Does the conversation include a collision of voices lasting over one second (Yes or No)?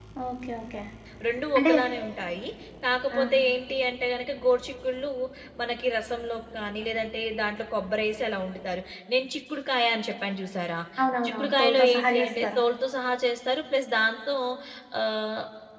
Yes